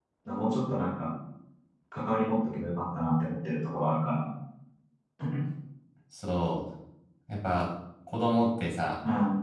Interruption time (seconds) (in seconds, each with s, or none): none